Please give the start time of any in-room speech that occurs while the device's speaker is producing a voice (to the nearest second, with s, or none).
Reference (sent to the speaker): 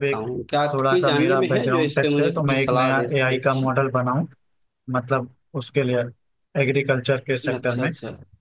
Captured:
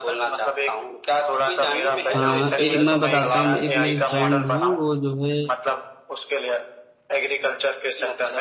2 s